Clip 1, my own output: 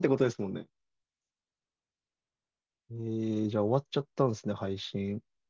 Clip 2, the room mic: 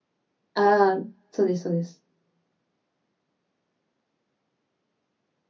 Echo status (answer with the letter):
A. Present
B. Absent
B